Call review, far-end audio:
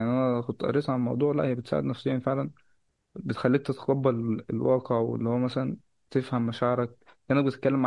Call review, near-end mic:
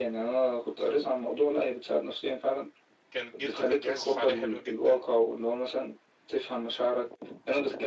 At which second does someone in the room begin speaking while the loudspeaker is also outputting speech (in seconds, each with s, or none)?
3.1 s